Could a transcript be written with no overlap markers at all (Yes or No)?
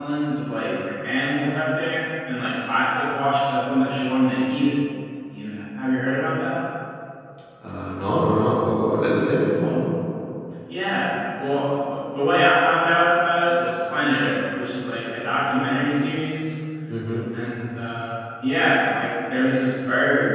Yes